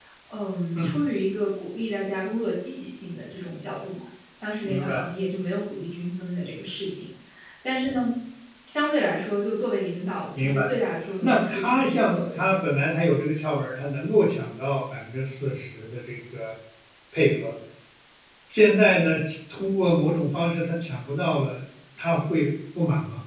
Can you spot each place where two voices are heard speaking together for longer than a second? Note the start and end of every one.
11.2-12.4

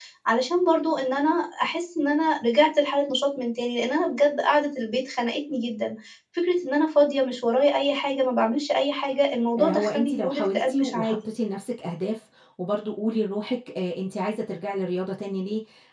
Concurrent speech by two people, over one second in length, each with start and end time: 9.6-11.2

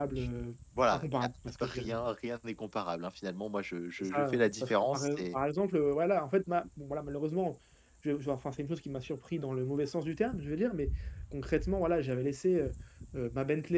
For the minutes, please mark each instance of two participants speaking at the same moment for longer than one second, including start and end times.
4.0-5.4

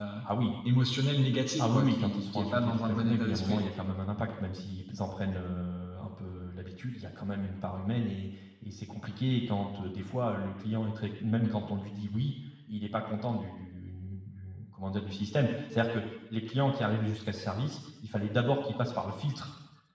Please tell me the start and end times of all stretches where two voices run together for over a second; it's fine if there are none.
1.6-3.6

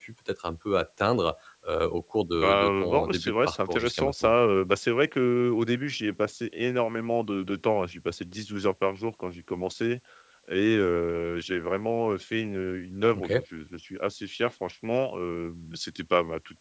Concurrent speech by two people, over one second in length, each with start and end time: 2.3-4.3

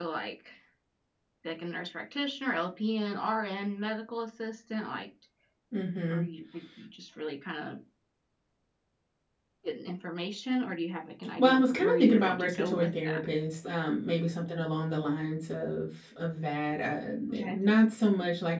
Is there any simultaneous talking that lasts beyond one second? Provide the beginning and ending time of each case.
11.4-13.2

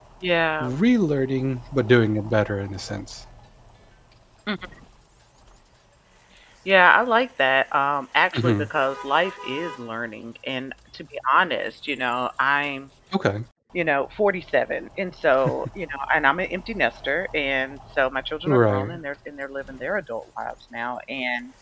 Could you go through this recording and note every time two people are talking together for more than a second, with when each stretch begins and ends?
none

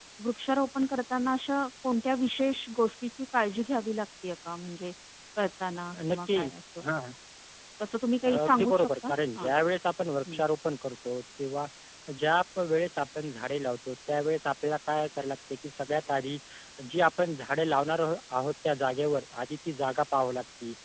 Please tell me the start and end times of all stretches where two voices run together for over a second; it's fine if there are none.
8.2-9.5

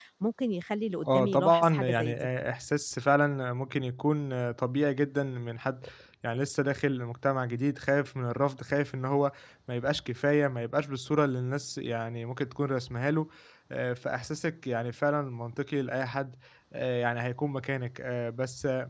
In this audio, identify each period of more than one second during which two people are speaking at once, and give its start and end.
1.0-2.3

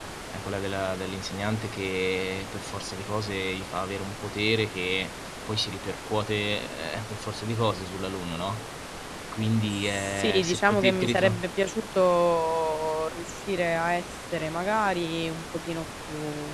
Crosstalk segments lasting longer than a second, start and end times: 9.8-11.4

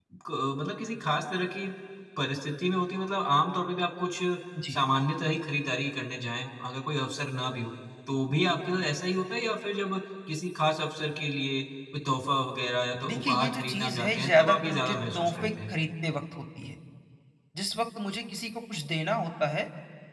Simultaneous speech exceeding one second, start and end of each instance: 13.1-15.7

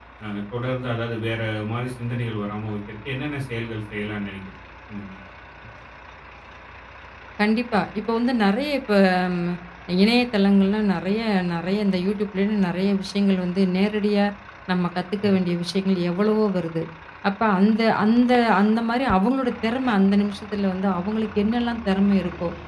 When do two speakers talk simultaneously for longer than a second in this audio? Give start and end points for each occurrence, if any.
none

